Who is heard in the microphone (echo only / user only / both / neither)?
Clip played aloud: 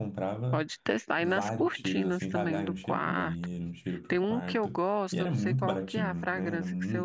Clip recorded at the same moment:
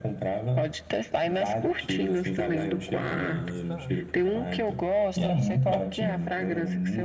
both